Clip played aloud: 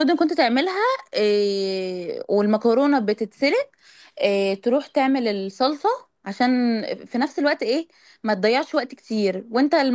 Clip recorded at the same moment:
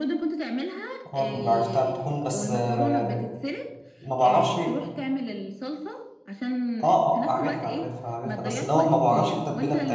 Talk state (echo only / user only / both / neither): both